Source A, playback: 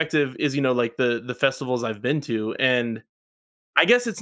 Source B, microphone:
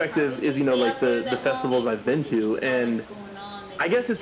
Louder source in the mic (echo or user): echo